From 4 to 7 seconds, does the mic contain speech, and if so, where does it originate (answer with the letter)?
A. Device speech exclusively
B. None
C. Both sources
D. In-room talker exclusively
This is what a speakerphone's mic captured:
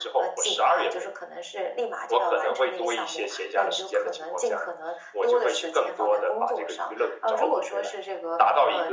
A